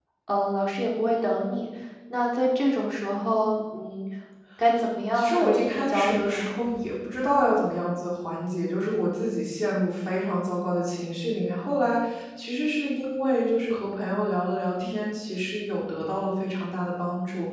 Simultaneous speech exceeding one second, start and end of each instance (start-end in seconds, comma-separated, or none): 5.1-6.5